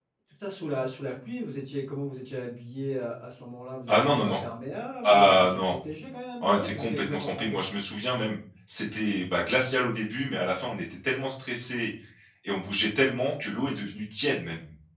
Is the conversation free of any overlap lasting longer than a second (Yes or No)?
No